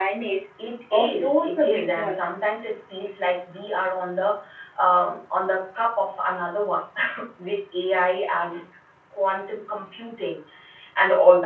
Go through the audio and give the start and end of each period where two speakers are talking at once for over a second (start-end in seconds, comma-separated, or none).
0.9-2.2